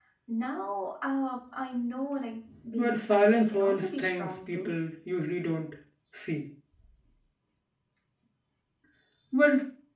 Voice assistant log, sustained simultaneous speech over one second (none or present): present